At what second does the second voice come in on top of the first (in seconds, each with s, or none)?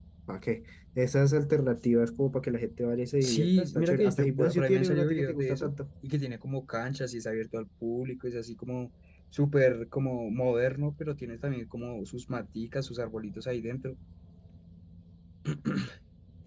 3.2 s